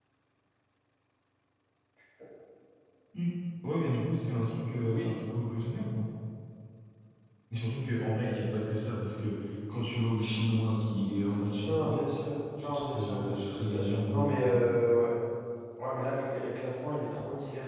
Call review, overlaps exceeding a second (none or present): present